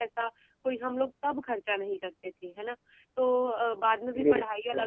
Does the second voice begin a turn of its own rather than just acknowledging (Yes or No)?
No